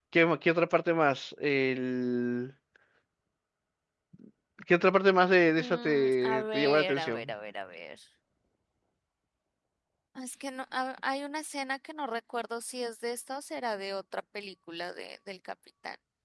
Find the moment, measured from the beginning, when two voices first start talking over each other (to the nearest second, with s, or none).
6 s